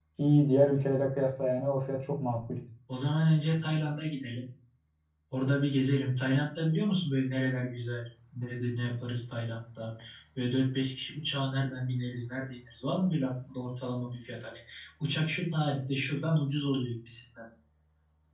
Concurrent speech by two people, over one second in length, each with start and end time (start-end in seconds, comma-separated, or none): none